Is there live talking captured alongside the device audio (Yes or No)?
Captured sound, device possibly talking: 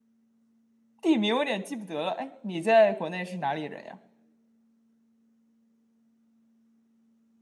Yes